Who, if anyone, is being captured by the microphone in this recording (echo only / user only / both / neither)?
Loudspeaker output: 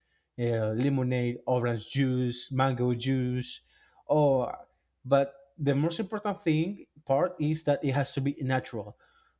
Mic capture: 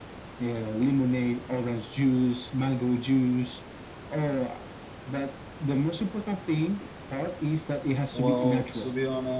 both